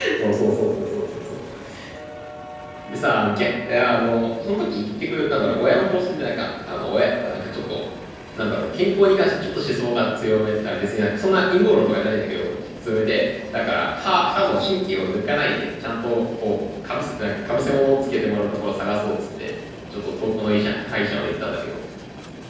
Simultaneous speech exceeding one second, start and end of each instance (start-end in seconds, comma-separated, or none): none